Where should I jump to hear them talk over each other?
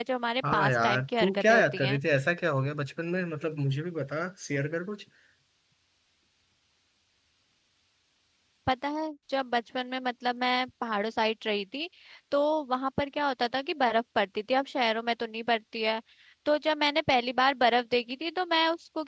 0.5 s

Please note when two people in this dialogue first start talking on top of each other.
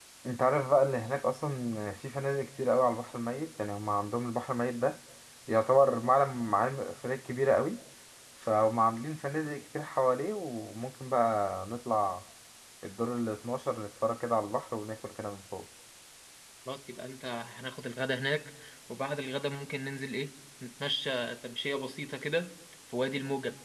none

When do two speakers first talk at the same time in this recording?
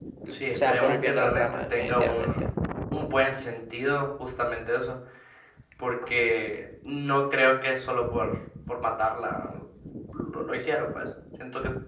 0.5 s

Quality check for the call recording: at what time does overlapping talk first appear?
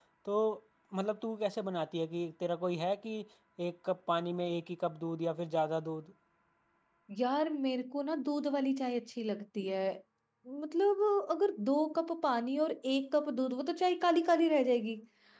none

